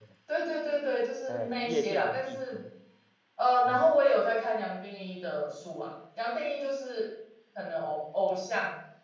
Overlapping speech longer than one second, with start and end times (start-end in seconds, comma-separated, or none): 1.3-2.6